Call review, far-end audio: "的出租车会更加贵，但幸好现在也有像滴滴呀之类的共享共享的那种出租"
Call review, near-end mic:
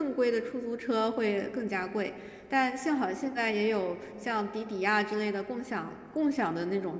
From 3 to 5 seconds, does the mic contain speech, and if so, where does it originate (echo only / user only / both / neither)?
echo only